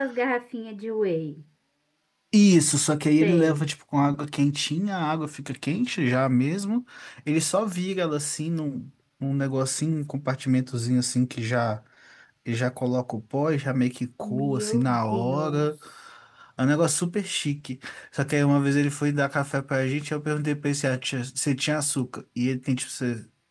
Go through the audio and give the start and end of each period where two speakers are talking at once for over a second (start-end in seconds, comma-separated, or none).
14.2-15.7